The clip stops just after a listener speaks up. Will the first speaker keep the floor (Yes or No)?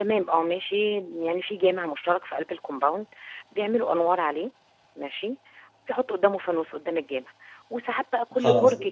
Yes